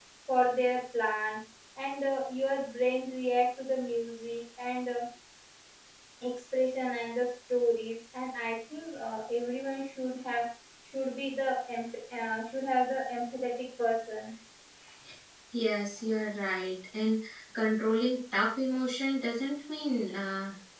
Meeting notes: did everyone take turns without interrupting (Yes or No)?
Yes